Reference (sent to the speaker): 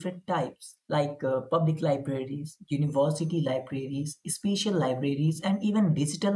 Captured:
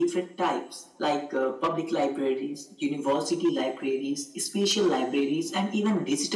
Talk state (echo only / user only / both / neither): echo only